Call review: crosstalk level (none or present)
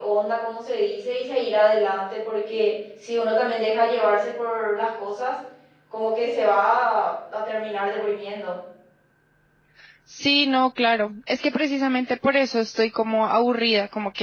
none